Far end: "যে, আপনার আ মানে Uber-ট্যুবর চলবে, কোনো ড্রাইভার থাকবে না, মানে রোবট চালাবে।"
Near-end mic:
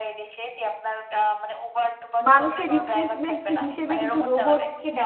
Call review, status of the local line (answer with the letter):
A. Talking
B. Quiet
A